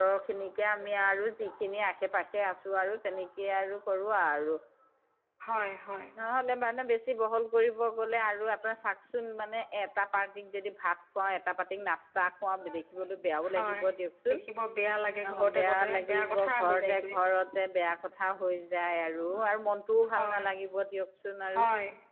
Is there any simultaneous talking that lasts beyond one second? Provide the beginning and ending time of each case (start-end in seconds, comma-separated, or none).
15.2-17.1